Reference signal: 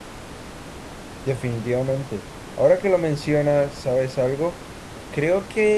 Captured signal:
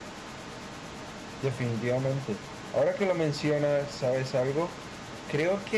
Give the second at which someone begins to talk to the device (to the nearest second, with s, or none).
none